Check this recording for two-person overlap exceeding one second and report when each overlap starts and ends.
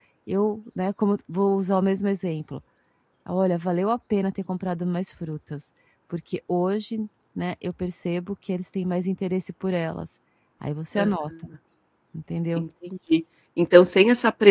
none

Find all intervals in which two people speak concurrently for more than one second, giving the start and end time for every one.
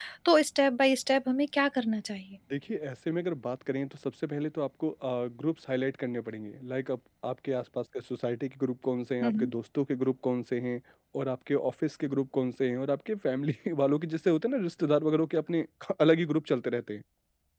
none

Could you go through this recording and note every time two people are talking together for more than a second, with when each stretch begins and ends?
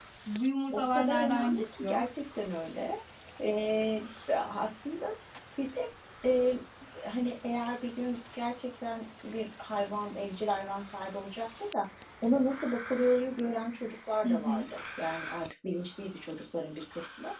0.7-2.0

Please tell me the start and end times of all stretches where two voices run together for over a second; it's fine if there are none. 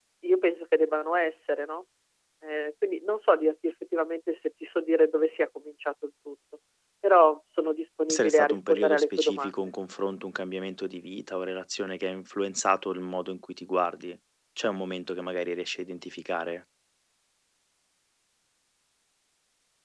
8.1-9.5

